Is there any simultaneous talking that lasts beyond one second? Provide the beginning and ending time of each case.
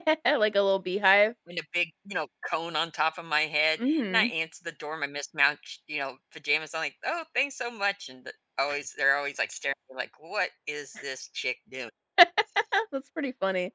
none

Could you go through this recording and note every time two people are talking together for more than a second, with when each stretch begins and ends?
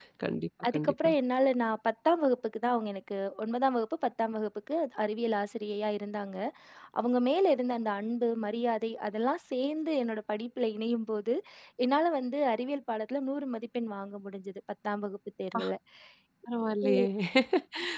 none

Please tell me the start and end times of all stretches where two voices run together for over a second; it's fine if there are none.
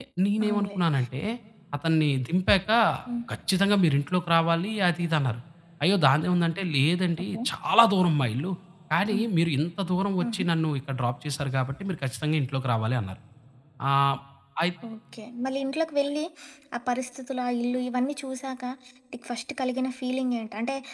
none

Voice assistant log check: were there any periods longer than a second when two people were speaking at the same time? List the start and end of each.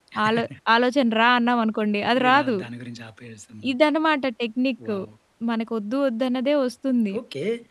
none

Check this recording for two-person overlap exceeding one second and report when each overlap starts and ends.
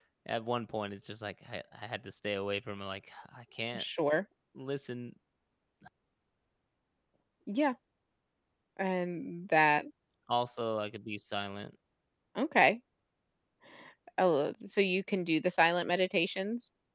none

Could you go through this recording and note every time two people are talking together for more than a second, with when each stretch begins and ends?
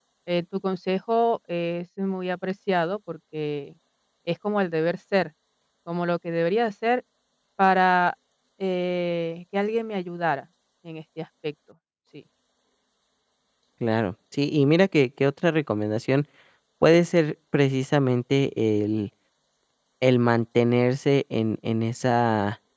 none

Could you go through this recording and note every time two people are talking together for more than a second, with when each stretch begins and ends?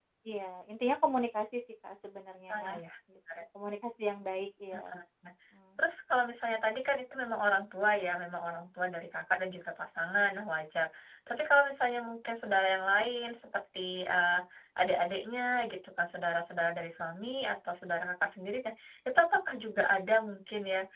none

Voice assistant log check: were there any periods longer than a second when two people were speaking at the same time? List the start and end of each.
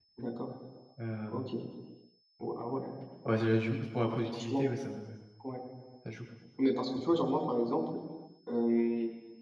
none

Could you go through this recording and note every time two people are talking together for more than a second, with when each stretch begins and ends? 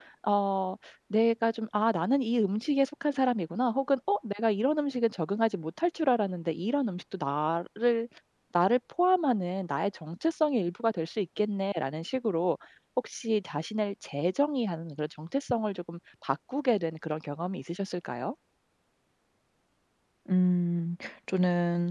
none

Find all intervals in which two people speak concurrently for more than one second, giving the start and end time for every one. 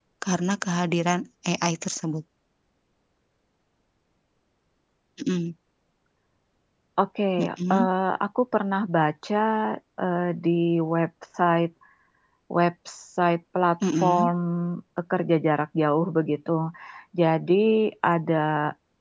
none

